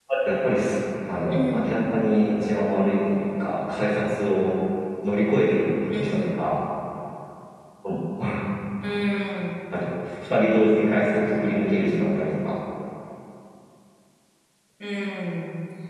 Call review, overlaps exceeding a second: none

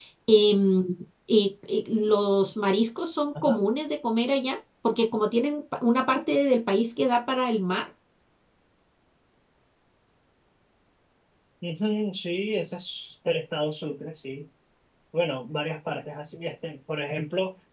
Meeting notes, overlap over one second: none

